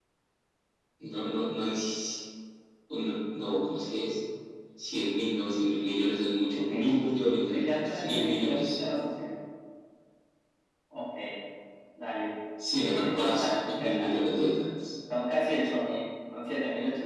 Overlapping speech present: Yes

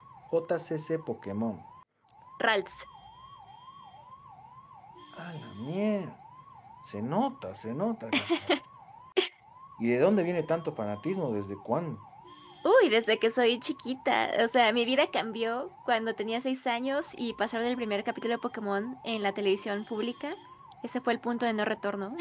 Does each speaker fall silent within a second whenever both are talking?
Yes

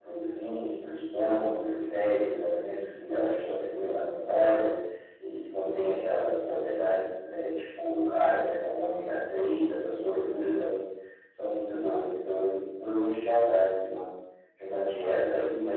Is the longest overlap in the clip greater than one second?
No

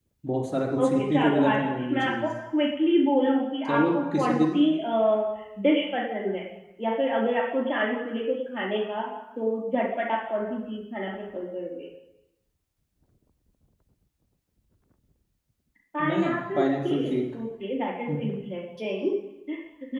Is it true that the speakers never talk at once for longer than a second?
No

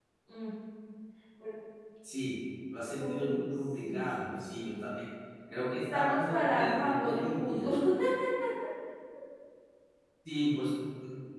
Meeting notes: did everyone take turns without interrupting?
No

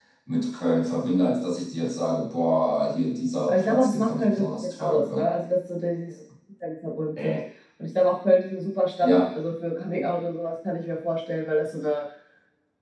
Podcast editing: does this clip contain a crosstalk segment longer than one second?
Yes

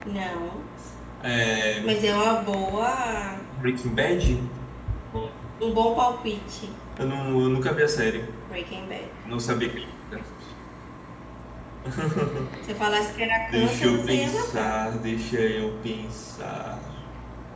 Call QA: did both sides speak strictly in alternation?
No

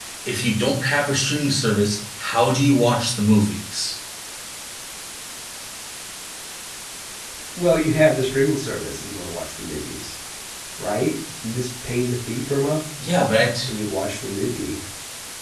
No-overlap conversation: Yes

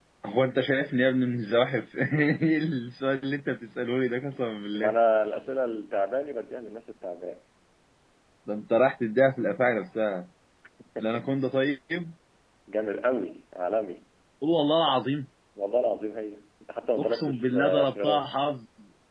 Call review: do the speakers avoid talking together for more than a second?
No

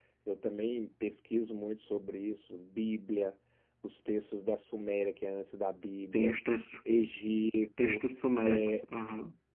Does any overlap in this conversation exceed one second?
No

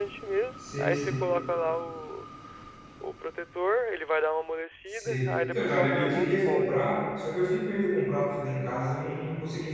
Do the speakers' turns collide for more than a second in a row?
Yes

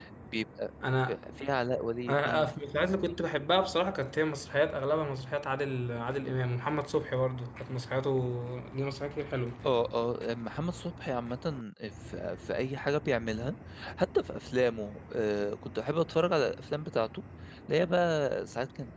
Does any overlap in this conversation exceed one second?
No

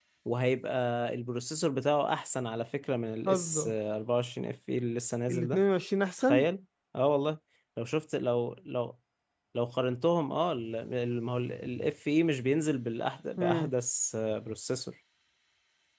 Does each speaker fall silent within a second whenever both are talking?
Yes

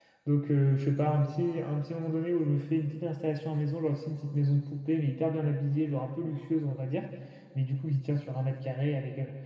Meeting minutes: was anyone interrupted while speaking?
No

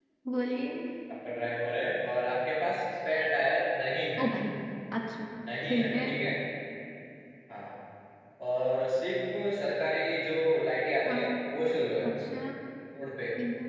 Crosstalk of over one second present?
No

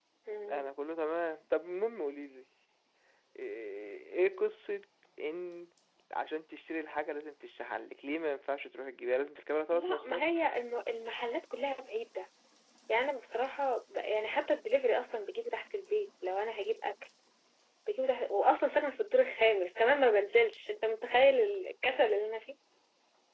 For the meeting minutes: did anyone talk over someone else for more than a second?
No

